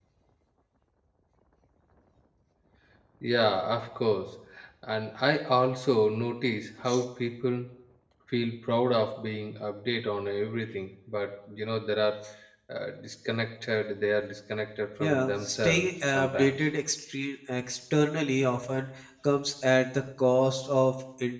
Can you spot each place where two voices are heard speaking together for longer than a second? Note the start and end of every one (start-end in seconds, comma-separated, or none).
15.0-16.5